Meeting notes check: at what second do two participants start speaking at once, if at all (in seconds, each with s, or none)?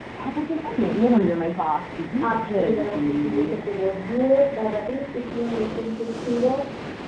2.2 s